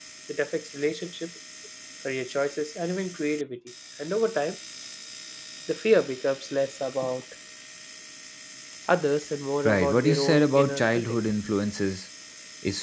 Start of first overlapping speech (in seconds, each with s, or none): 9.6 s